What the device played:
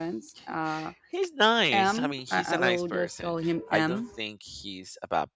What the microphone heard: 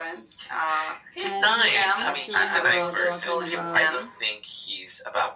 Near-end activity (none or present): present